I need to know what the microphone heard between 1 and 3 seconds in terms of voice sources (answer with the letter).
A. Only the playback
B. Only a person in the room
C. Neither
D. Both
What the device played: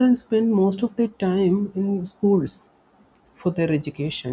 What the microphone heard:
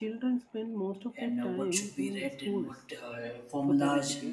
D